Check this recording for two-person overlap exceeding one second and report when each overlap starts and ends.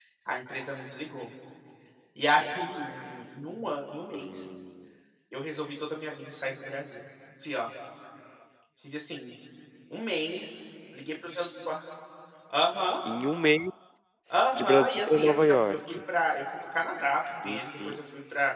14.6-16.0

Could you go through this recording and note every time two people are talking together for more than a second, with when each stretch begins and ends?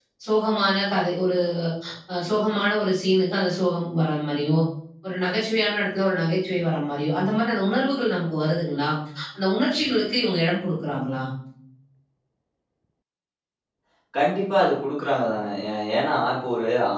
none

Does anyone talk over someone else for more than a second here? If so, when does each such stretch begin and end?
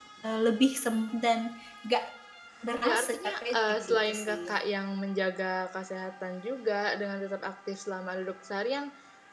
2.8-4.5

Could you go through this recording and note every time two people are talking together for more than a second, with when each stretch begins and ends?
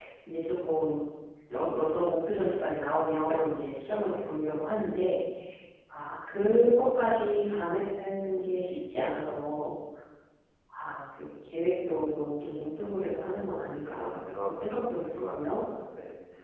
13.1-15.6

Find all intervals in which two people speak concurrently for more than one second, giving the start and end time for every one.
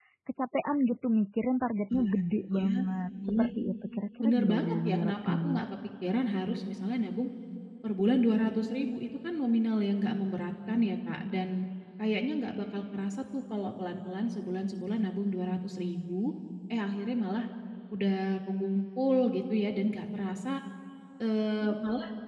4.2-5.6

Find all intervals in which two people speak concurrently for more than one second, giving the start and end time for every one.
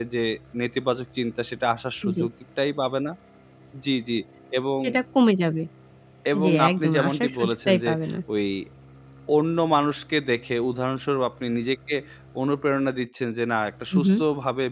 6.4-7.9

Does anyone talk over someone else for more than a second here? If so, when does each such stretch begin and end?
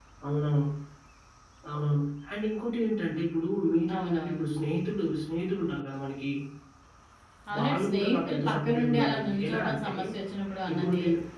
7.5-9.9

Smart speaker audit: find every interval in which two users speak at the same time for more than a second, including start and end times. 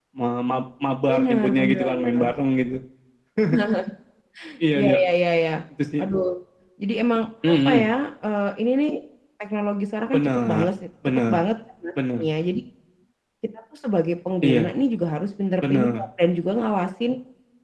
1.1-2.3

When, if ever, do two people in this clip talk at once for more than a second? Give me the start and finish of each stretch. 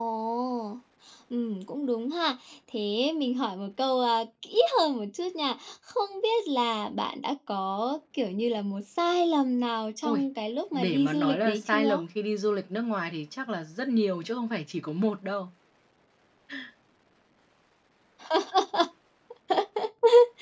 10.7-12.0

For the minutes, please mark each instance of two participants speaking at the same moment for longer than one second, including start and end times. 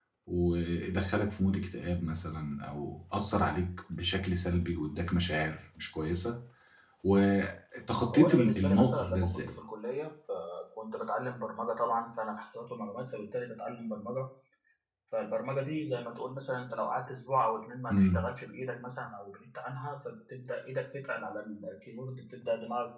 8.1-9.6

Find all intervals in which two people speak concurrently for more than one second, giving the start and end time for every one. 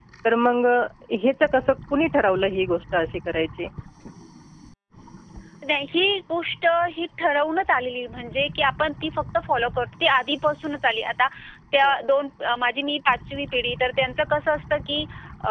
none

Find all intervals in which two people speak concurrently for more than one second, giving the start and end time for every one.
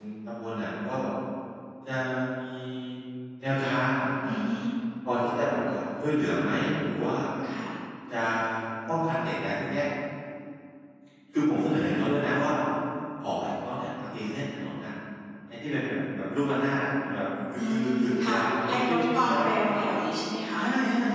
17.6-19.5

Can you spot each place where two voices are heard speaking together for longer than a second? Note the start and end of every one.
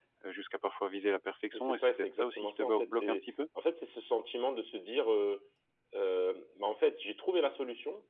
1.5-3.3

